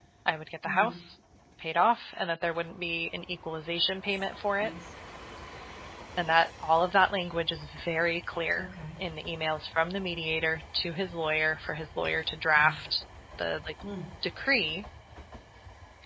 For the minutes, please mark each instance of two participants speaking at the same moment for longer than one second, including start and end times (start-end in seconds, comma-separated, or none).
none